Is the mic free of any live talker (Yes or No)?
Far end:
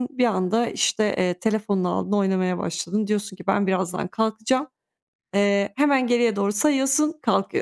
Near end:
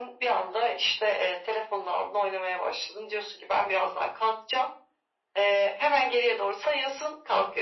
Yes